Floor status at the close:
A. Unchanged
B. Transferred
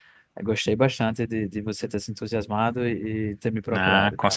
B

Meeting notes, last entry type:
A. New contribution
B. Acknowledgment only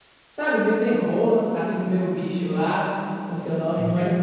B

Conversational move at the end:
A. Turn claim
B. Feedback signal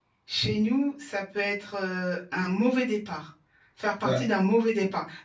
B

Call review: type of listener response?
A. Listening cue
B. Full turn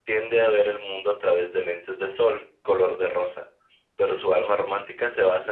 A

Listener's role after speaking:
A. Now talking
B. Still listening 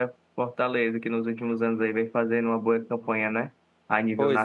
A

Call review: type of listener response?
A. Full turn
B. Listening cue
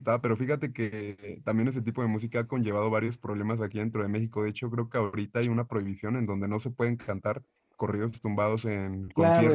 A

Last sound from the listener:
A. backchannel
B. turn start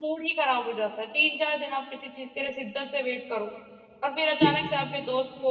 A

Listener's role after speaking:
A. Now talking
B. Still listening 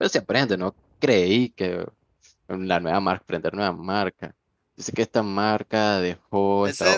A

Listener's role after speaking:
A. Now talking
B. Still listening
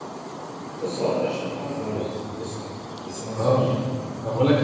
A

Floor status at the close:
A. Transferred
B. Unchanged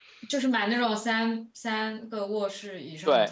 A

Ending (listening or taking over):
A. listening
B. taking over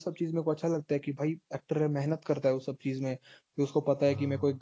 A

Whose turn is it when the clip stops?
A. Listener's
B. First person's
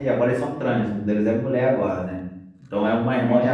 B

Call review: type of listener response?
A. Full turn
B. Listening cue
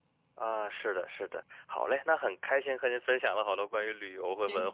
B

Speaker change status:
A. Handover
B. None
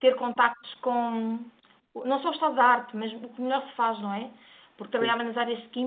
B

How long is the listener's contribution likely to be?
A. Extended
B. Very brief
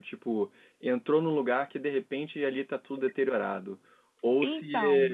B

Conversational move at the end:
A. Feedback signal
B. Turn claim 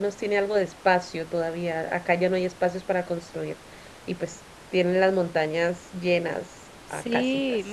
B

